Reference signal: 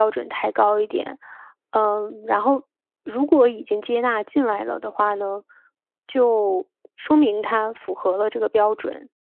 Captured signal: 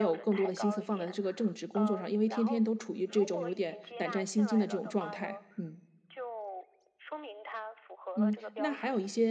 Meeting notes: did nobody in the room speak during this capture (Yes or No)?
No